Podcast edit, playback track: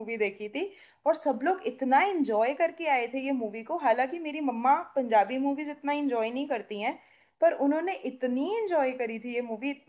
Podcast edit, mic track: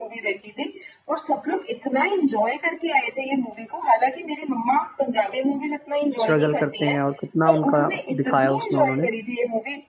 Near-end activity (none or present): present